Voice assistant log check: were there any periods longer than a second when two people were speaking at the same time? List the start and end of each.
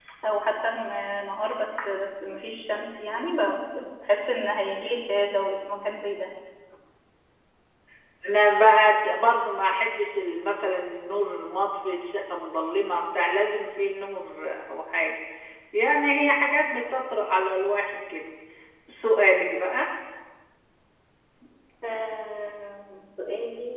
none

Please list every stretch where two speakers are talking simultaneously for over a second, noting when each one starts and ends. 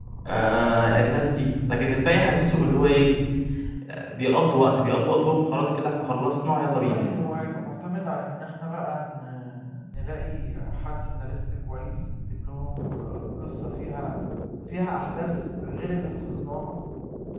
none

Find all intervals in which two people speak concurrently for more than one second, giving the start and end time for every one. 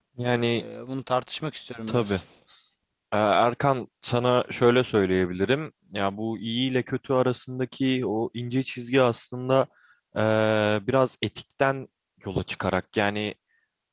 none

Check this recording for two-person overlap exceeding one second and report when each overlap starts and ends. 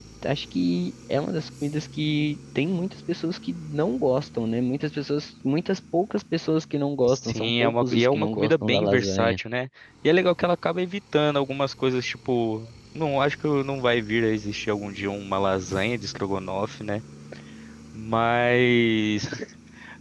7.1-9.4

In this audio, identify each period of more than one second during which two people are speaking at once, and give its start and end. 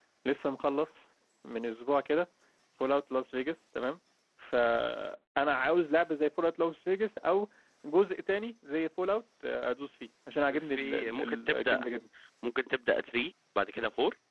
10.6-11.8

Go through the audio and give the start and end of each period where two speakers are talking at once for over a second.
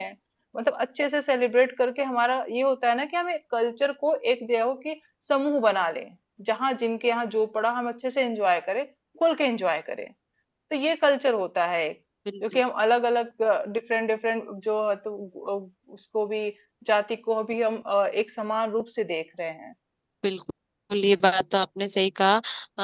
none

